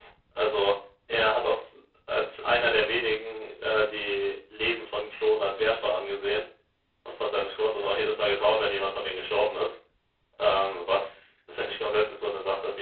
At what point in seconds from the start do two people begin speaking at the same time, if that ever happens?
none

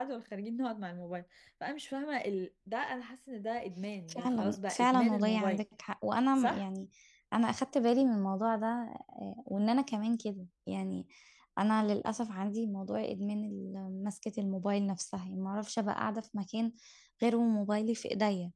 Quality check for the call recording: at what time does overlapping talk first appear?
4.1 s

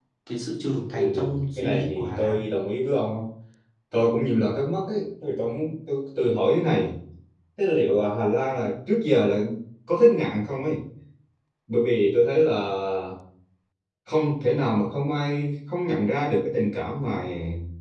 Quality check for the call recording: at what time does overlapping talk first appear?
0.9 s

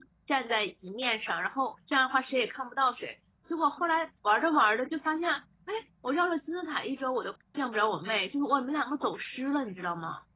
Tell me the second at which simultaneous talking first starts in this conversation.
none

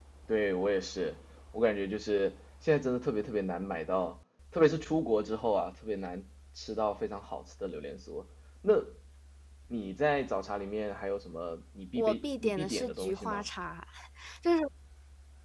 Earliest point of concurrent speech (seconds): 11.9 s

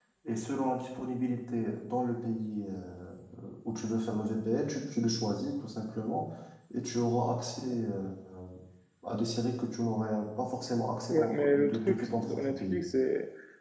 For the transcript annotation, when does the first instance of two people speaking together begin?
11.1 s

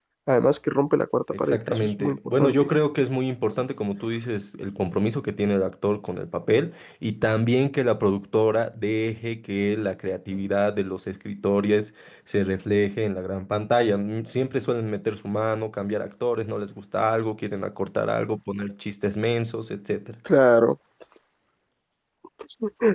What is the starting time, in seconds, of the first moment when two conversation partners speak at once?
1.3 s

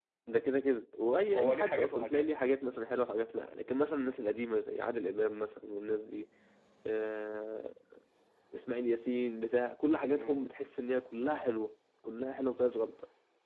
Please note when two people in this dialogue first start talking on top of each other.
1.0 s

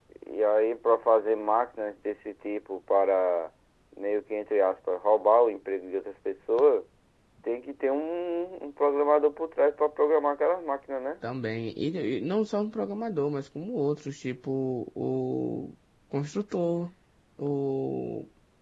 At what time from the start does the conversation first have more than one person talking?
none

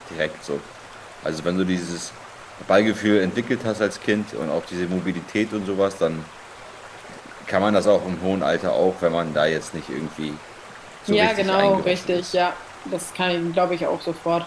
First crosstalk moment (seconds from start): 11.1 s

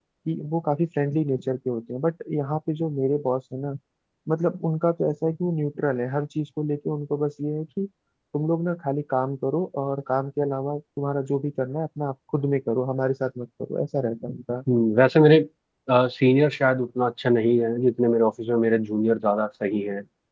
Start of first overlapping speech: none

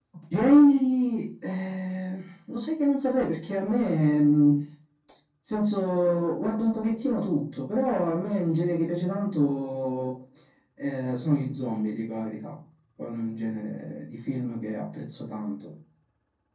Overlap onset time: none

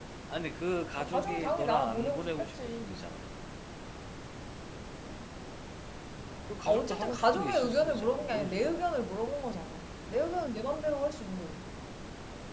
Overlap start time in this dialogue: 1.0 s

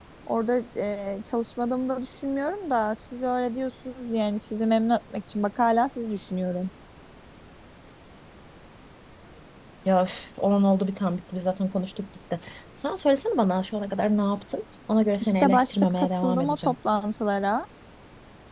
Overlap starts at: 15.2 s

